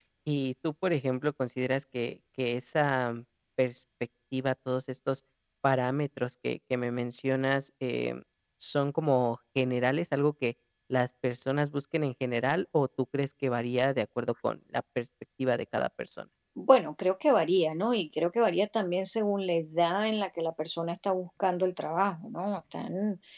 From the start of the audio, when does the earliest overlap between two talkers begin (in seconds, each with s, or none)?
none